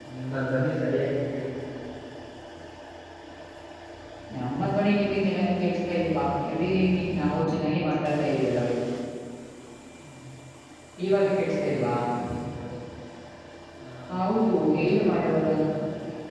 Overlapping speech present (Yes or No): Yes